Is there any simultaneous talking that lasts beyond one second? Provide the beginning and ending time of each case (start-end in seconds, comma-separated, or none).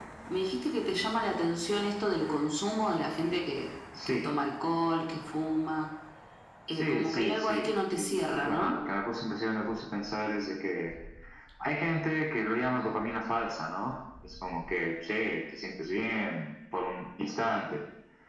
6.7-8.8